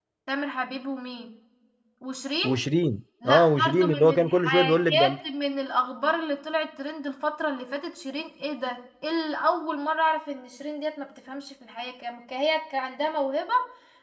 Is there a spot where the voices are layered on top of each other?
Yes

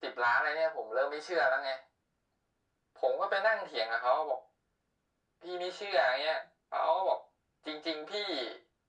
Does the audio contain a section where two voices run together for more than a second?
No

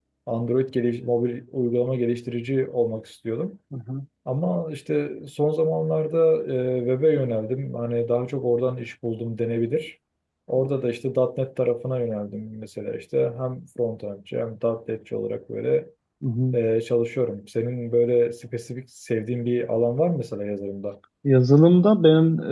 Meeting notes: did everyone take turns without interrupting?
Yes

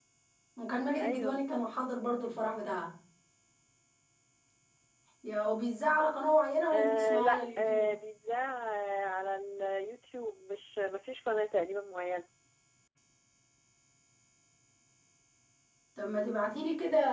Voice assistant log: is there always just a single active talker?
No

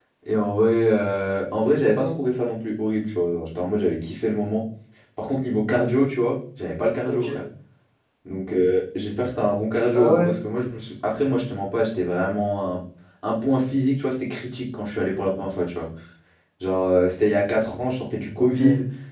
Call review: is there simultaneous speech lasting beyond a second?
No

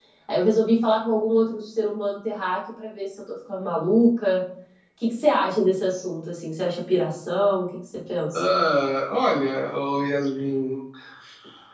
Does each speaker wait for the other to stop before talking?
Yes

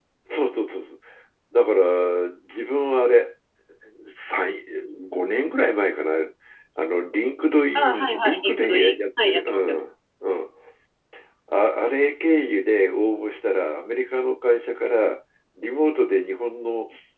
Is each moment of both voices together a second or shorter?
No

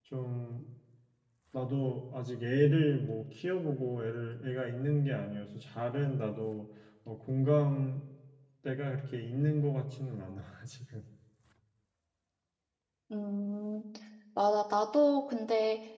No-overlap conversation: Yes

